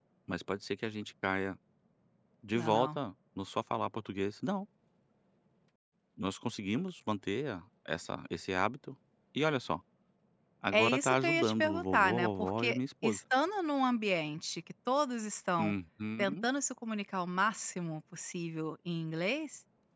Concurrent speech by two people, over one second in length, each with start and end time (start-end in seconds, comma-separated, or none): 10.7-13.2